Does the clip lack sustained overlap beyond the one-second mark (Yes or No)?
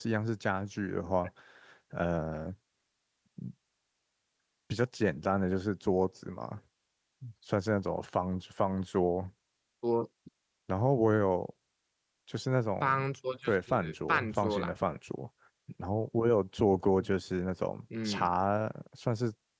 No